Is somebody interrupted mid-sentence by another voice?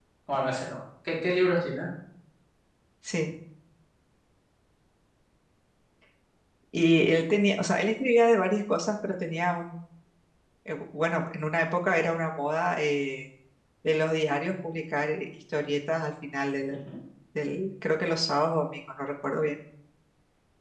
No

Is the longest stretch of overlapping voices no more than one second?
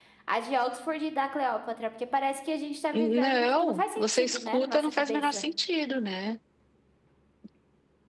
No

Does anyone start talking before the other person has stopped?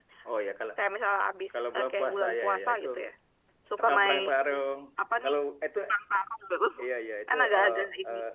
Yes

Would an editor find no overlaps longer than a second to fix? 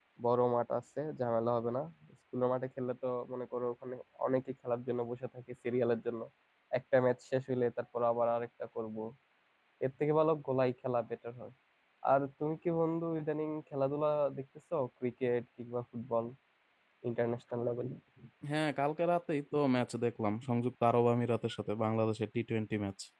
Yes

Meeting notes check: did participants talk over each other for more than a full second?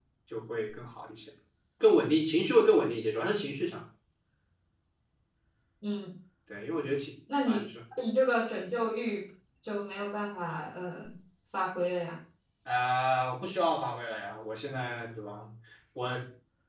No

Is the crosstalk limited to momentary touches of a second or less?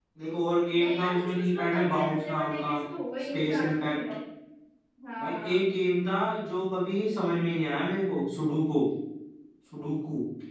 No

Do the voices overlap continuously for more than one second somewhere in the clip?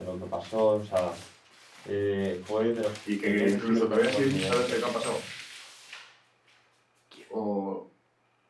Yes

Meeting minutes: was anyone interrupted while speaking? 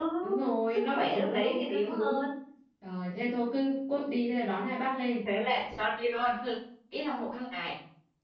Yes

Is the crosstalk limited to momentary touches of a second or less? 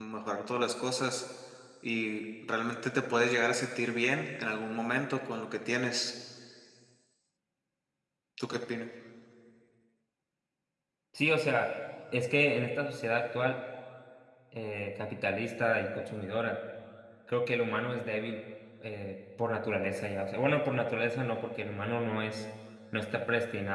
Yes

